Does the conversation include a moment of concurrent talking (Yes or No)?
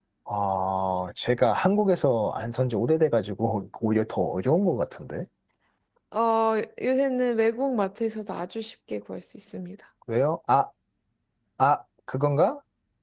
No